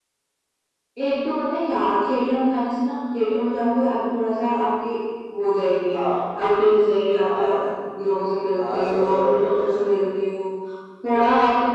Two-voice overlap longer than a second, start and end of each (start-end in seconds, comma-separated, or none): 8.6-9.8